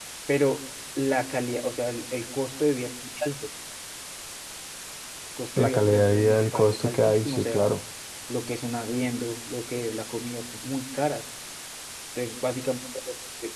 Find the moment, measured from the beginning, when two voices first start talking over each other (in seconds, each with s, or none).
5.6 s